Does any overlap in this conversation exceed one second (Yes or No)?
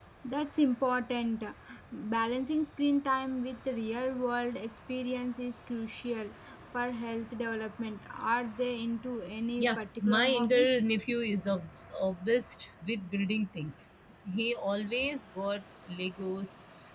Yes